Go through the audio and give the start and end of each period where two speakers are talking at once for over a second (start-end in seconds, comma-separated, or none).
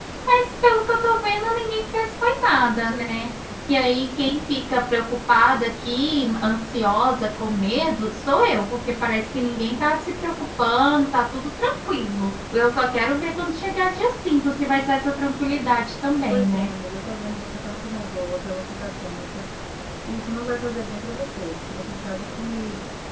none